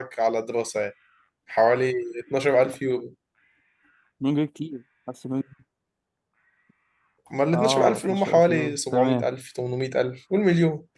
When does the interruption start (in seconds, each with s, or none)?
7.5 s